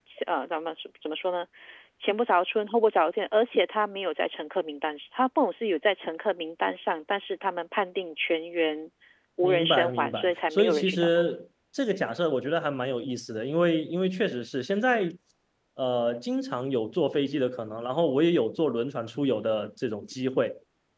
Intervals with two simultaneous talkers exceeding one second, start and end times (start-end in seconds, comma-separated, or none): 9.4-11.1